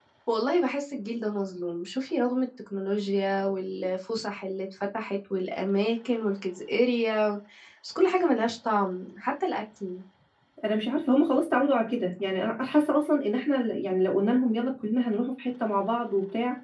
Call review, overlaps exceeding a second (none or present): none